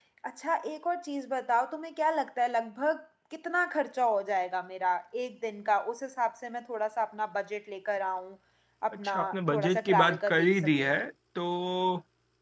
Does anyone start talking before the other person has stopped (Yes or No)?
Yes